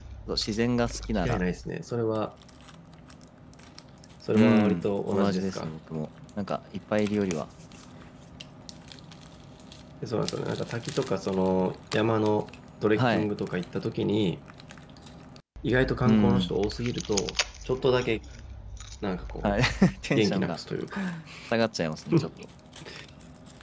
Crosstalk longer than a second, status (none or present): present